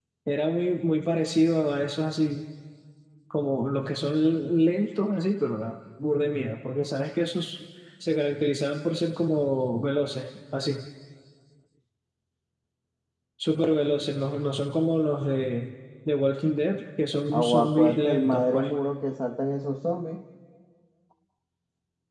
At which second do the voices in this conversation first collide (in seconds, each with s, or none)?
17.3 s